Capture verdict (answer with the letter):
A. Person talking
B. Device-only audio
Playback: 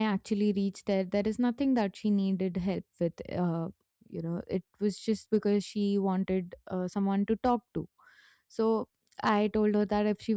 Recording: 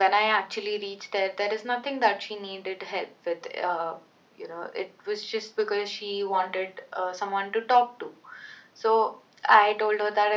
B